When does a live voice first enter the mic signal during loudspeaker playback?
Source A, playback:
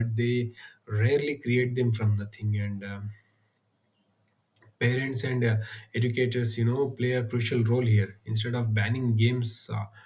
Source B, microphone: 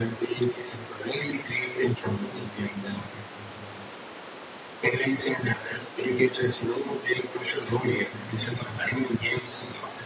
none

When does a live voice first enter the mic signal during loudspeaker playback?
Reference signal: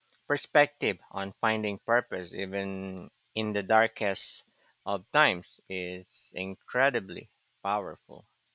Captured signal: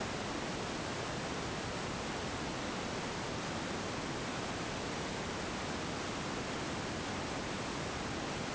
none

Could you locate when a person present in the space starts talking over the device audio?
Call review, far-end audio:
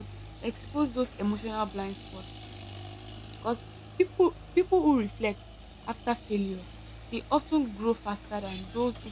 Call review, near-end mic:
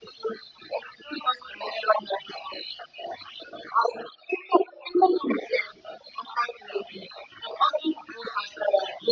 none

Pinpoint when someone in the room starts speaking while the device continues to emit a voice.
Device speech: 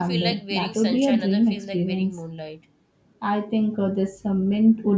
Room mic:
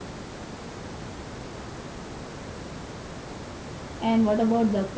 4.0 s

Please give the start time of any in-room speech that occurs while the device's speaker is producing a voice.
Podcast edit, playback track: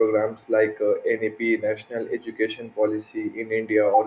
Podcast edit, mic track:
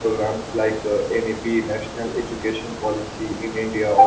none

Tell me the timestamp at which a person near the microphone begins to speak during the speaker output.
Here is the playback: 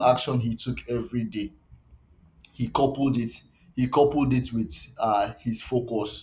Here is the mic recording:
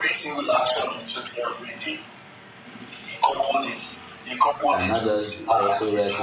4.7 s

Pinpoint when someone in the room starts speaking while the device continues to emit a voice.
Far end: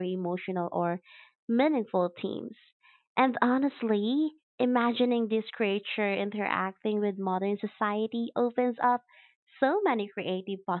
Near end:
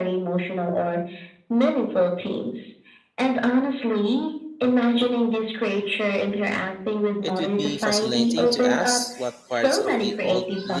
7.2 s

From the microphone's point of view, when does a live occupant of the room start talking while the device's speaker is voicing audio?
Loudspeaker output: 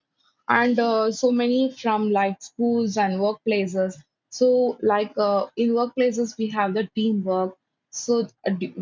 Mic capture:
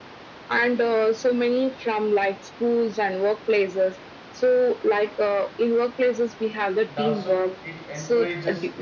6.9 s

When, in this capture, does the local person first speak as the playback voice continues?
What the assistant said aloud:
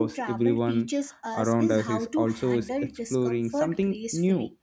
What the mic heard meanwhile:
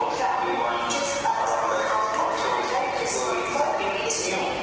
none

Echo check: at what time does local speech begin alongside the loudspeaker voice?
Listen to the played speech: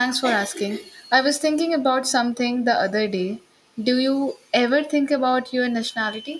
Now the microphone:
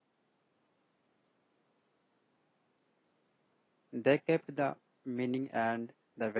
3.9 s

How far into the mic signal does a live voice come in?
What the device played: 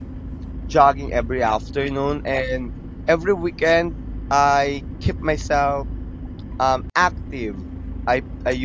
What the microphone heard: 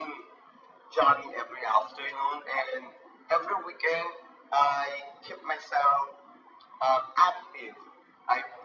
none

